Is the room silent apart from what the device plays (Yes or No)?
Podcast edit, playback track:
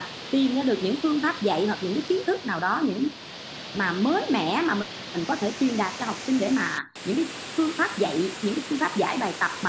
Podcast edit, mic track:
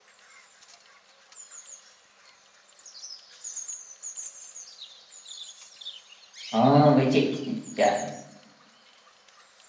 No